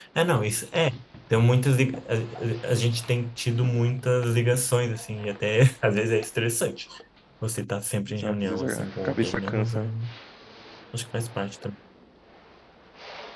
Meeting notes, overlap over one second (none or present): present